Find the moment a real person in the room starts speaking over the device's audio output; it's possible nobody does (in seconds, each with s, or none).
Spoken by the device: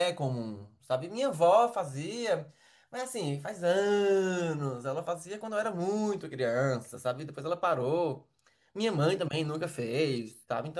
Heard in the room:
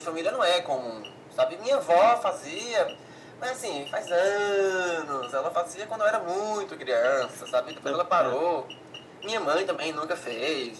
7.8 s